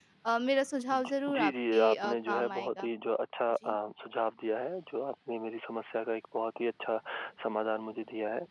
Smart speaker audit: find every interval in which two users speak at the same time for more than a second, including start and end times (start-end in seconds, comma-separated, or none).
0.9-2.9